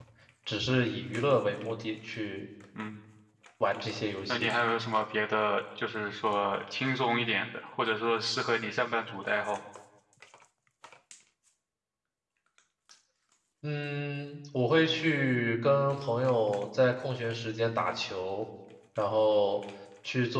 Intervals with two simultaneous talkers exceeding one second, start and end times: none

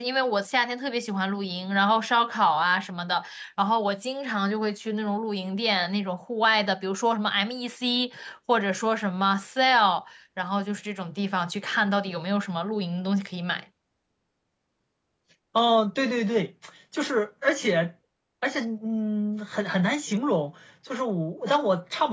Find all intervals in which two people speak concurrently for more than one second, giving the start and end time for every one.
none

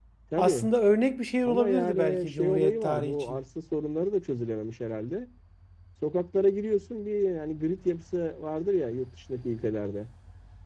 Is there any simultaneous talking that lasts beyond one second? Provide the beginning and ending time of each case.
1.4-3.4

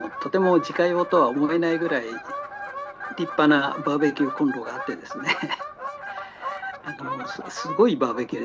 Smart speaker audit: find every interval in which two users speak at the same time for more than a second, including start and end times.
none

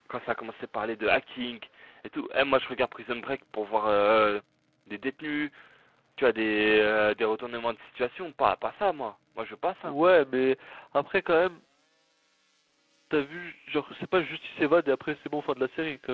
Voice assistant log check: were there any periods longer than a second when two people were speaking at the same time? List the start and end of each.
none

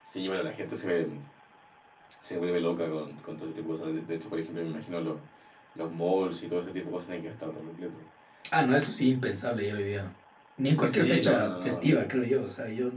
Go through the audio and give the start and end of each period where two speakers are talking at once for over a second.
10.8-12.1

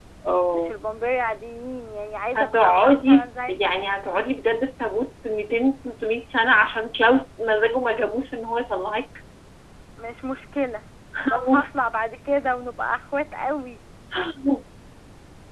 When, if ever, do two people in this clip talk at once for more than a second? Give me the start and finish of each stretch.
2.4-3.6

